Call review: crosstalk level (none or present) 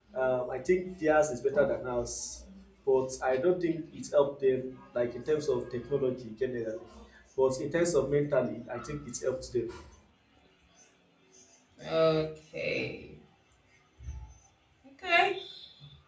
none